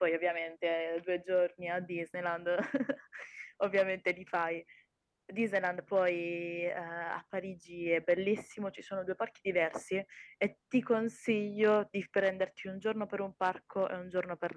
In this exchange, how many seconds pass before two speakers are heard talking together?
none

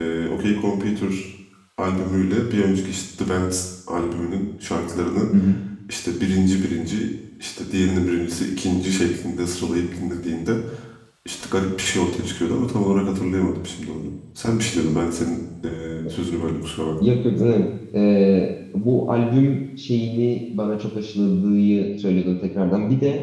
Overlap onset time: none

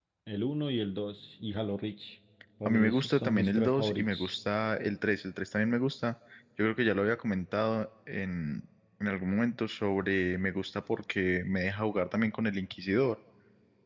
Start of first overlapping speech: 3 s

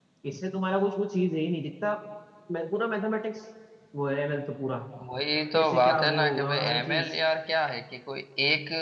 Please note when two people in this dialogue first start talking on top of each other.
6 s

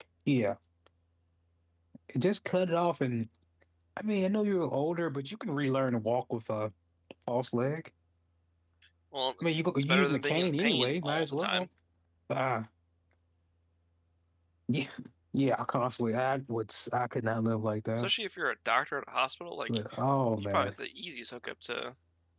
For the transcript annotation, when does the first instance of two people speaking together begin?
10 s

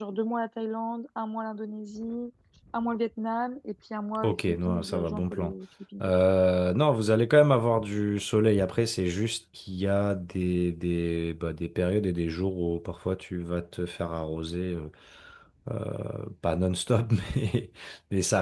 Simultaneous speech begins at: 4 s

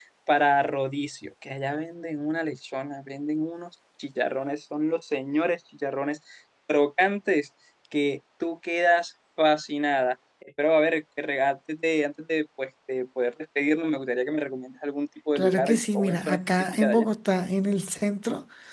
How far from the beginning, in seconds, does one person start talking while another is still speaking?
15 s

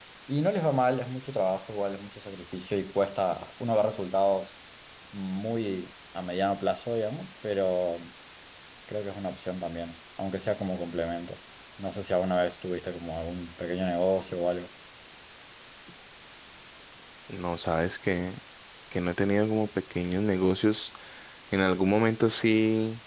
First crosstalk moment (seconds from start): none

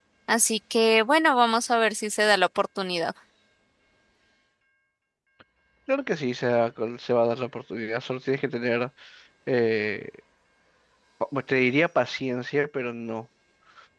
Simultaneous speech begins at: none

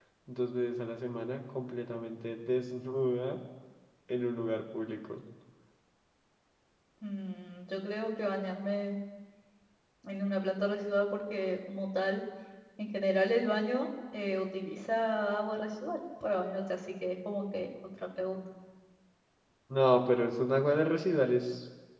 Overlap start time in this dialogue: none

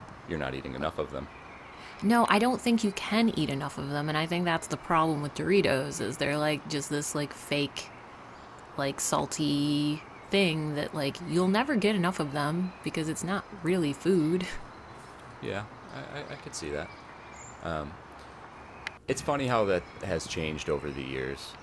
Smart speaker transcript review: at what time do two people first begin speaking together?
none

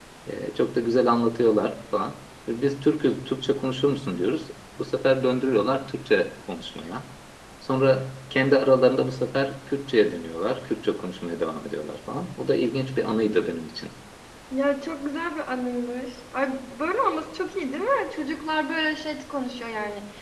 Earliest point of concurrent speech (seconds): none

